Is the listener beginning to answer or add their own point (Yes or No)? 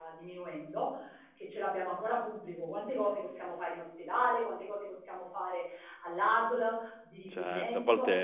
Yes